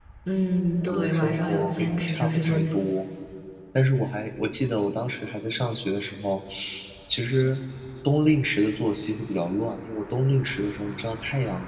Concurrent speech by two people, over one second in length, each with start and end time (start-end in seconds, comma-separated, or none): 0.8-2.6